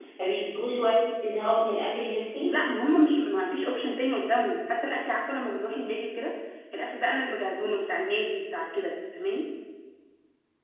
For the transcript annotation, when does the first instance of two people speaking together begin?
none

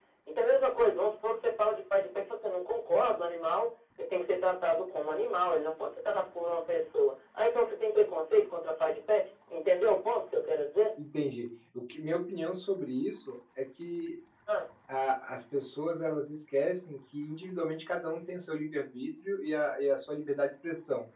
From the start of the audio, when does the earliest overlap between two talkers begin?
none

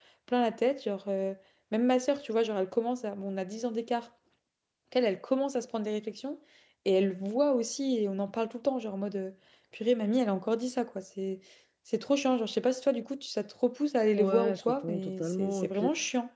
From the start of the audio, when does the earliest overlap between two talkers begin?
14 s

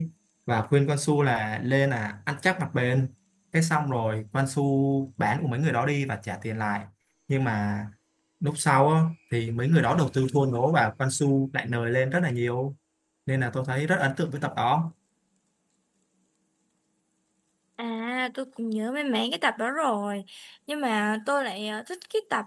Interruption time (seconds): none

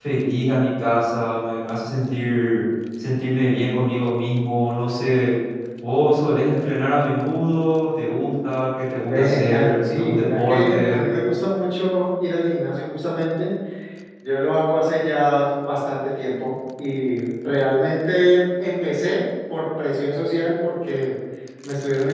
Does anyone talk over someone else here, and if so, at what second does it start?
9 s

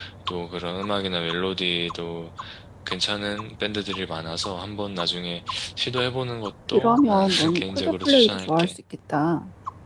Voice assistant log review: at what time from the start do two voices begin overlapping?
7 s

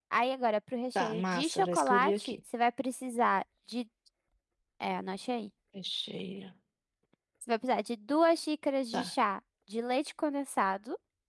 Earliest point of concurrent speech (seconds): 1 s

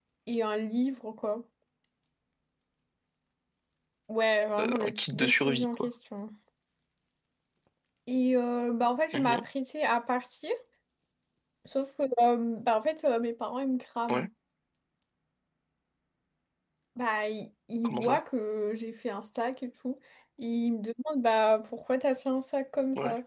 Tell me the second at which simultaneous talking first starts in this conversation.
5 s

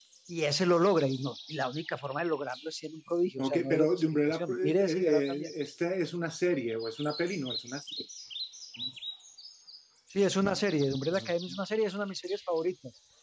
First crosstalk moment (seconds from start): 3 s

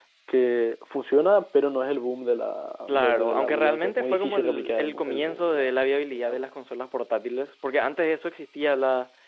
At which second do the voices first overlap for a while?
3 s

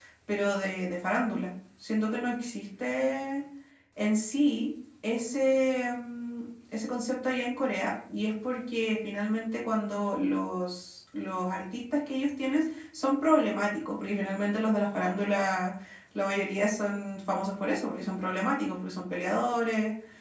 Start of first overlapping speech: none

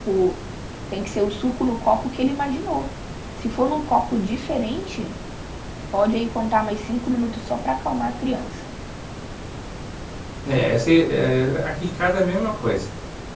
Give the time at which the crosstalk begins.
none

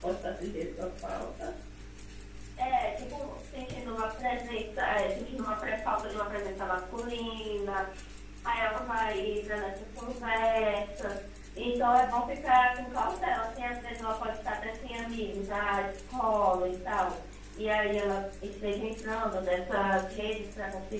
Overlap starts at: none

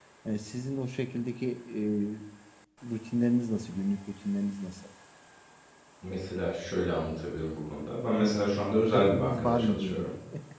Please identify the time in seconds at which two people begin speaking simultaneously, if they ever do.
9 s

